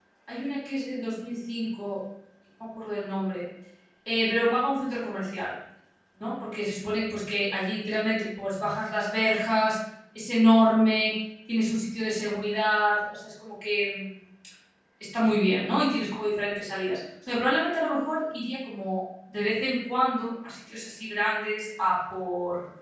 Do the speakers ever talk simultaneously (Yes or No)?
No